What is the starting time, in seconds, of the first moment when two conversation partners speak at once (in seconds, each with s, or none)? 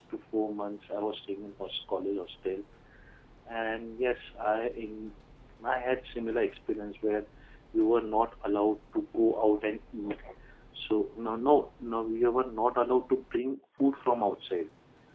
none